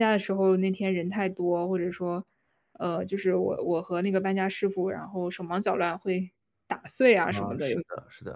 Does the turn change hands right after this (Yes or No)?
Yes